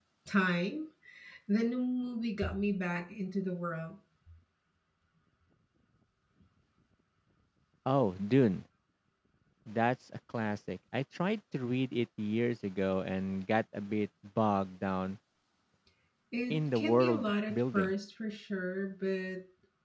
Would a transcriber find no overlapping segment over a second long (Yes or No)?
No